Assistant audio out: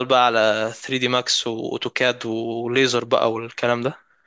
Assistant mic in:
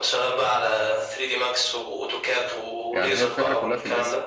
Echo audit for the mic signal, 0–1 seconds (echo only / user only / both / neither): echo only